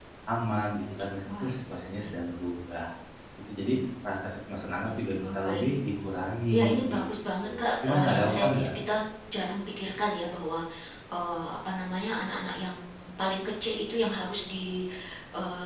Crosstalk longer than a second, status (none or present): present